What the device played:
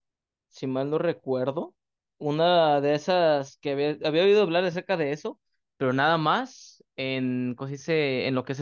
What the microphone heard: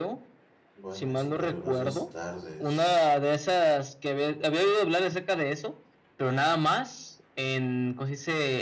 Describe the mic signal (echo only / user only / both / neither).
both